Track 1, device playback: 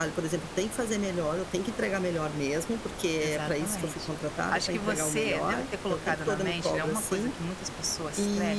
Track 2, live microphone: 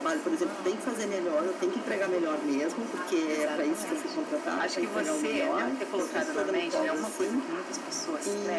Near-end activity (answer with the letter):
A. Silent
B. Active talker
B